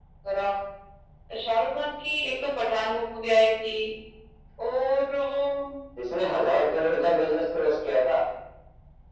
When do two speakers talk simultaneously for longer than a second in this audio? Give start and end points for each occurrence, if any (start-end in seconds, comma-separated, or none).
none